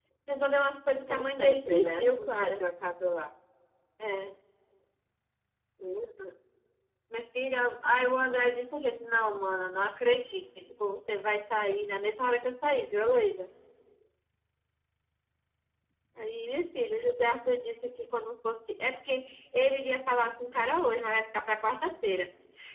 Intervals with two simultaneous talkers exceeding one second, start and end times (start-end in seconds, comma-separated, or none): 1.1-2.6